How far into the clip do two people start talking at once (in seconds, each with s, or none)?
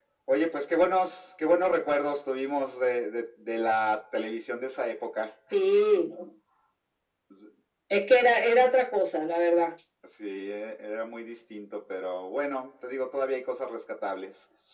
none